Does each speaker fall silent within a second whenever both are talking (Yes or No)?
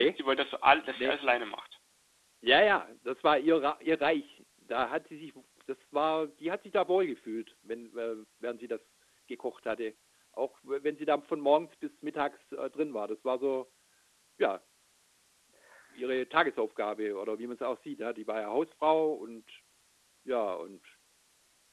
Yes